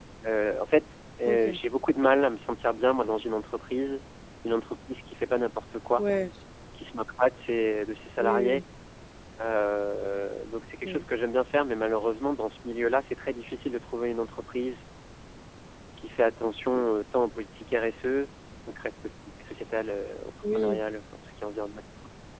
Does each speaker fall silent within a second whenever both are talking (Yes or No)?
Yes